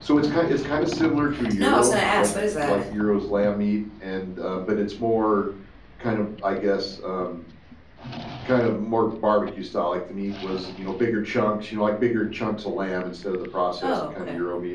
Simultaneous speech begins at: 2 s

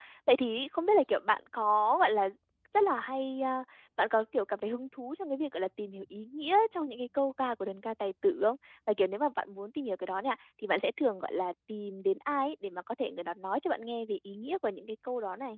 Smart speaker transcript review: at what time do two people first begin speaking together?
none

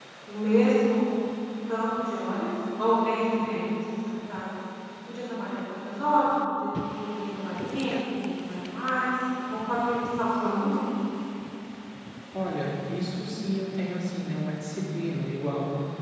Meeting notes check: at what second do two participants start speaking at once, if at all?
none

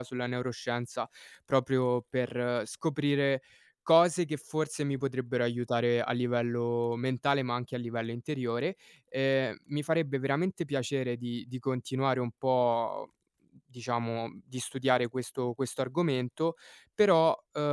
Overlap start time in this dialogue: none

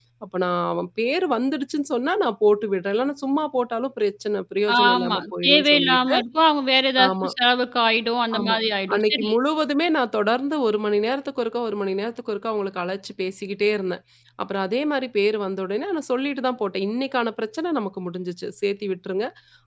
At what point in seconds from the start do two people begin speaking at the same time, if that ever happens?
5 s

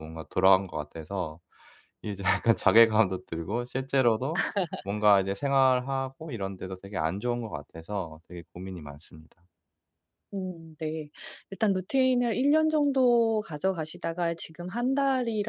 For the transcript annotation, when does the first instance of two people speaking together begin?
none

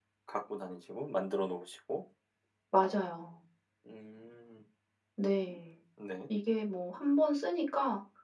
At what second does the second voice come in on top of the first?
none

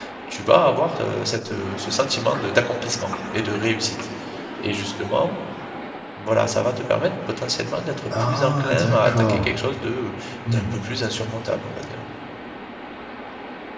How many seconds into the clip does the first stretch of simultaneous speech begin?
8 s

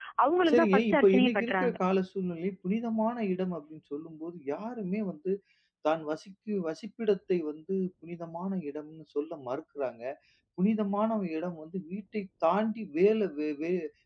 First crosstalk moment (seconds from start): 1 s

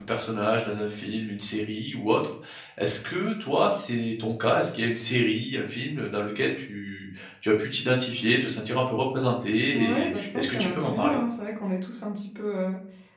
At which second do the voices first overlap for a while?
10 s

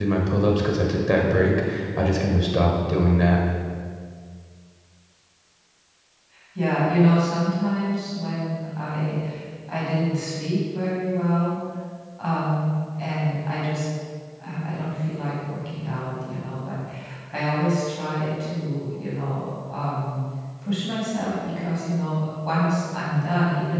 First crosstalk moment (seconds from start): none

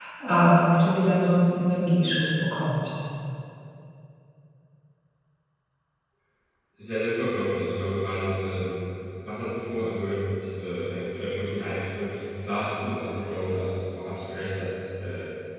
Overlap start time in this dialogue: none

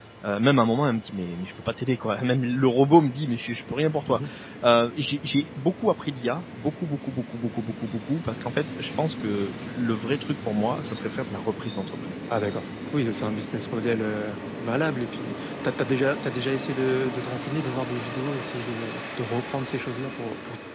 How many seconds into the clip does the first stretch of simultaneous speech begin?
none

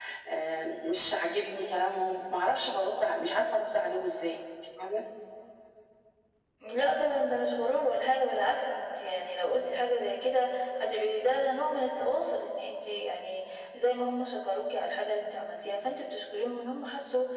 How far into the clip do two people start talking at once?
none

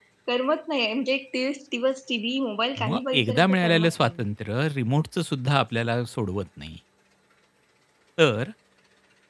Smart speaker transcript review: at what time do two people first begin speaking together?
3 s

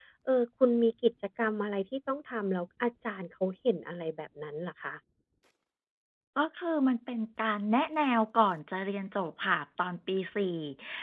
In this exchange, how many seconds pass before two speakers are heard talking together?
none

